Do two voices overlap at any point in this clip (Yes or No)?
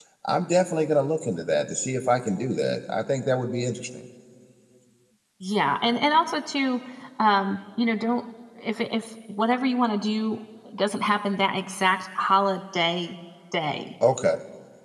No